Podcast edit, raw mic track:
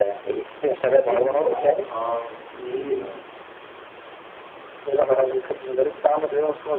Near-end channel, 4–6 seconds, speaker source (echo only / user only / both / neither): echo only